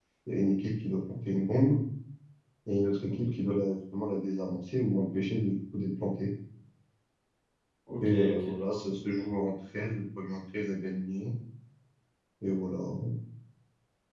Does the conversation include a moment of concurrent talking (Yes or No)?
Yes